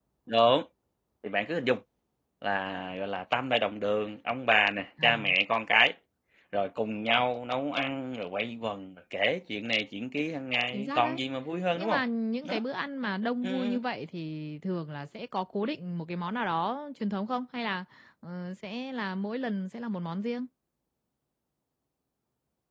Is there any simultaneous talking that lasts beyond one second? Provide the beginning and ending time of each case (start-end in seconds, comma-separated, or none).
none